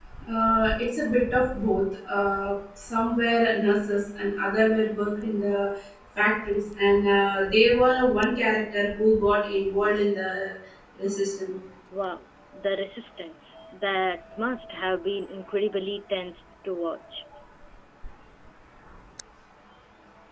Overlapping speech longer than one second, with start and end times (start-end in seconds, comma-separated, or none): none